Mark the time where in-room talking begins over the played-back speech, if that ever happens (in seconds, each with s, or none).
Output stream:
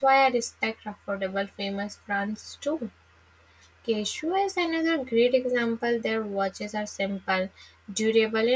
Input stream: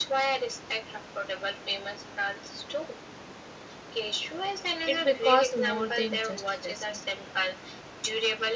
4.8 s